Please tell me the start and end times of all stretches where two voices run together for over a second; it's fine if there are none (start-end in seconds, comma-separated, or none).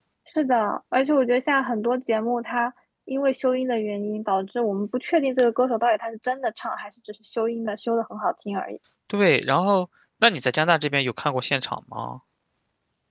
none